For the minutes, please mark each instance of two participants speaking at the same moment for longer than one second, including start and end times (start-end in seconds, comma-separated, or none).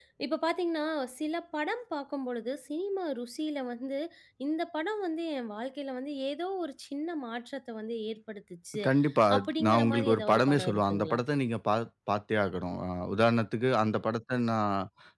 9.4-11.2